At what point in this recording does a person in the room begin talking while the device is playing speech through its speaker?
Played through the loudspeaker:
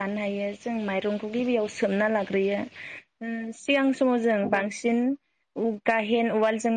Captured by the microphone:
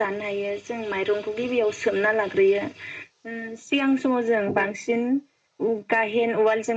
none

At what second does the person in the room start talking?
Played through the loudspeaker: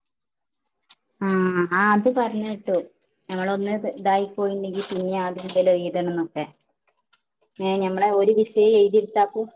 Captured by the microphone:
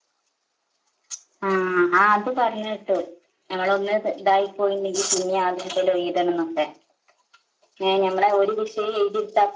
none

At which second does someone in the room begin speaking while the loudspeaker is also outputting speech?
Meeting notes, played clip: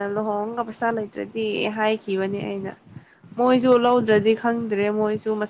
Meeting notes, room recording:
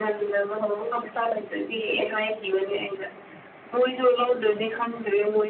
none

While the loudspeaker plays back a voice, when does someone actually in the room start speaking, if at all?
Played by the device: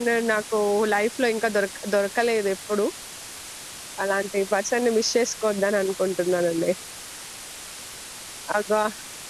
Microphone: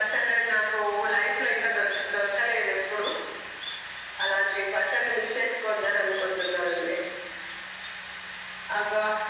none

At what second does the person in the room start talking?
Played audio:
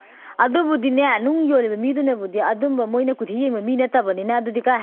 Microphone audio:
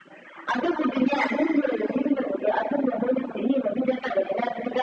none

